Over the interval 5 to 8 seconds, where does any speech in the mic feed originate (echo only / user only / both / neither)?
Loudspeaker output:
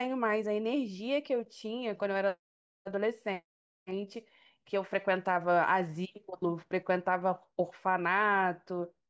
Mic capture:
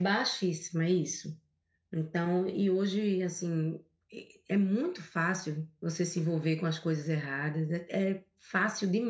user only